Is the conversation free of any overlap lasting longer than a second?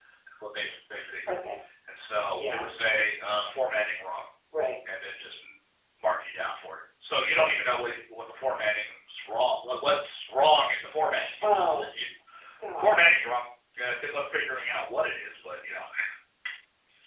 Yes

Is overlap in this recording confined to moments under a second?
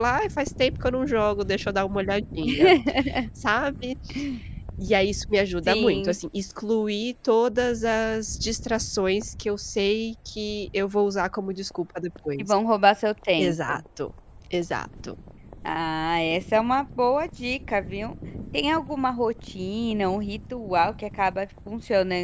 Yes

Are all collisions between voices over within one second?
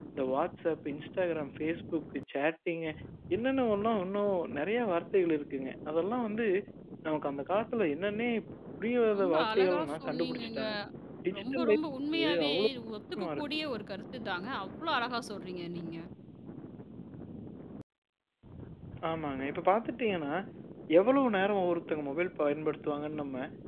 No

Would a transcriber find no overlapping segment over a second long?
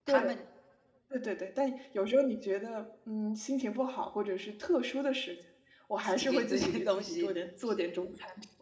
No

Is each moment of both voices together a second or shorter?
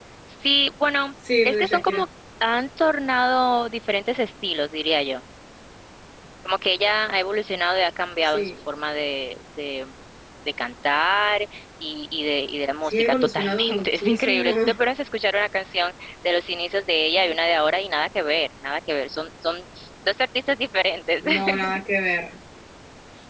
No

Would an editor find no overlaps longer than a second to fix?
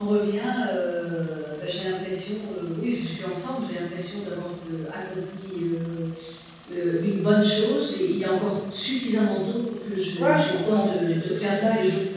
No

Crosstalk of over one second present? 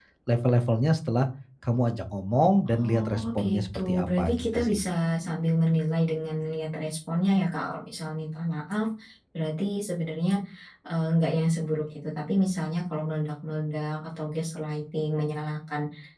Yes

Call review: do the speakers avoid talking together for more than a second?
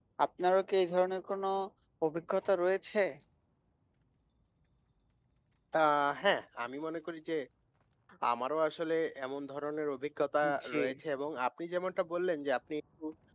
Yes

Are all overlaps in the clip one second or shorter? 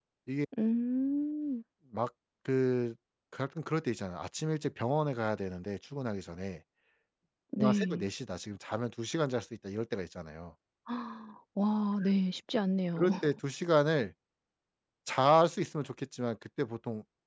Yes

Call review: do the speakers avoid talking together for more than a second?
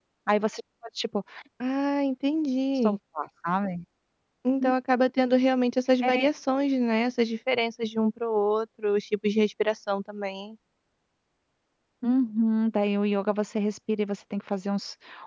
Yes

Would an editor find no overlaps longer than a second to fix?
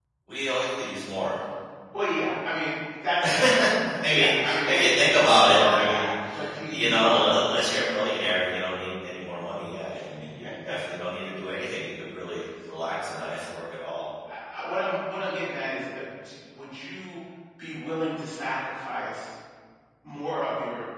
No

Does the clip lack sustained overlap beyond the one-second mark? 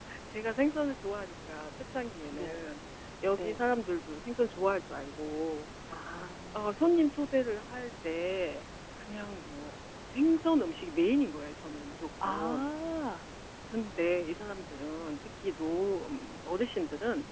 Yes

